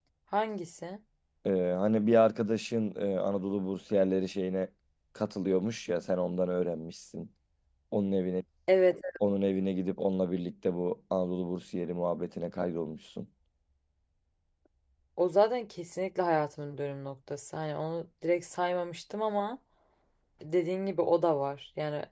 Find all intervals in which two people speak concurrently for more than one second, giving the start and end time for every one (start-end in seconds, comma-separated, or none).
none